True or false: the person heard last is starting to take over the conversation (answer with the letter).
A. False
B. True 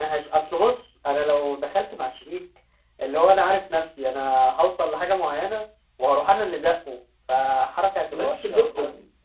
B